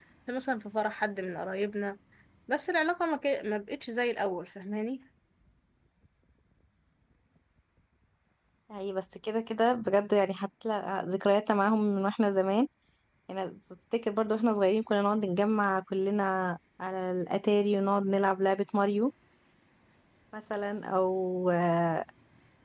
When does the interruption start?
none

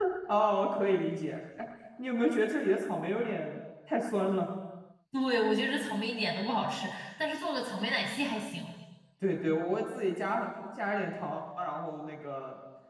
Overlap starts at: none

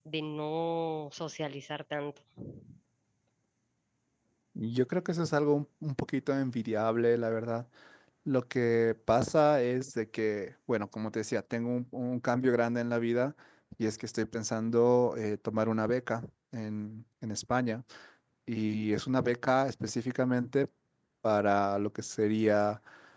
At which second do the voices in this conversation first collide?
none

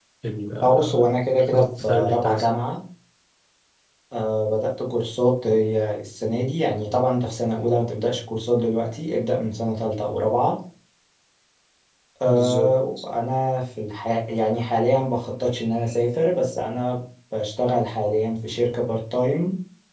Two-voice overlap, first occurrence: 0.6 s

